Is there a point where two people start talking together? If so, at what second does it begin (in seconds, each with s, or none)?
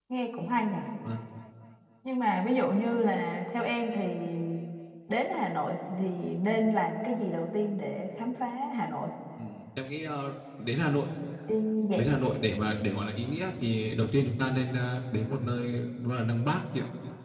none